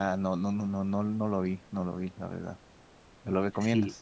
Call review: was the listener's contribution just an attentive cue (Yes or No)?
No